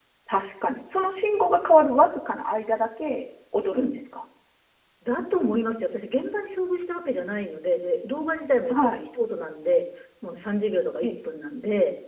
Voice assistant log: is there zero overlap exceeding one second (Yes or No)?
Yes